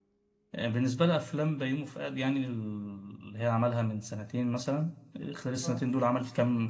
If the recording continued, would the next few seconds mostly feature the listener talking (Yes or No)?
No